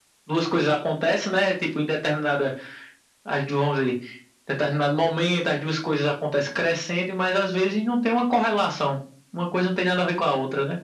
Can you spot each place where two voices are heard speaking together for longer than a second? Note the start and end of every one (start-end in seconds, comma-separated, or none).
none